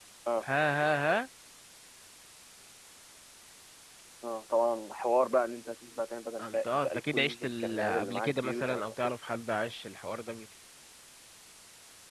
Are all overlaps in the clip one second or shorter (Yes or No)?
No